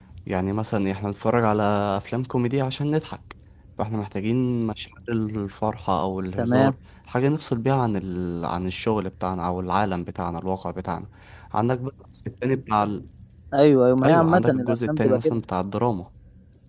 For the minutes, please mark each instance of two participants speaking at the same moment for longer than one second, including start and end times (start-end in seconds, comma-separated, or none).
14.0-15.4